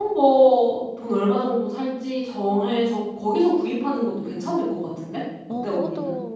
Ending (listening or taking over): taking over